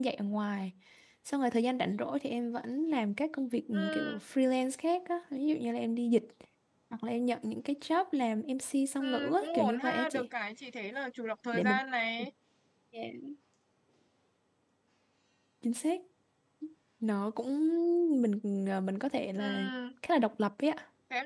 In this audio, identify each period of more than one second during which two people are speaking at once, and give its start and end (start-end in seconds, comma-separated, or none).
9.0-10.3